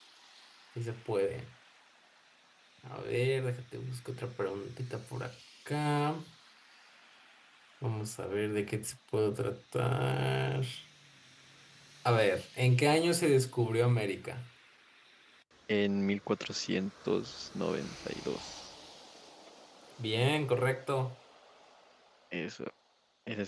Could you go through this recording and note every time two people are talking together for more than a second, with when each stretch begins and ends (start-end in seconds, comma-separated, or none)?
none